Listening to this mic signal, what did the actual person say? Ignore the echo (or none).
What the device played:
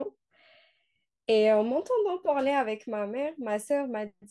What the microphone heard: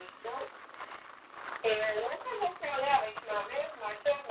none